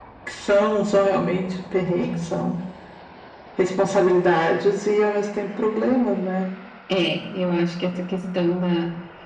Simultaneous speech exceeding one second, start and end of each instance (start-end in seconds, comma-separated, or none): none